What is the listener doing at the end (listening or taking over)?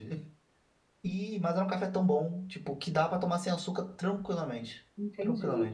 taking over